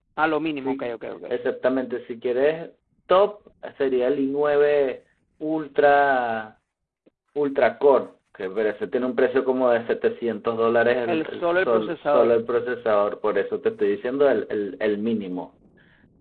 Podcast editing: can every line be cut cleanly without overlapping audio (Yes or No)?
No